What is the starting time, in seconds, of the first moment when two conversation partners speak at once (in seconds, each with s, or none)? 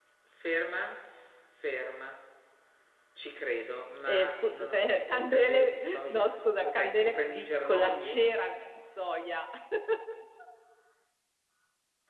4.0 s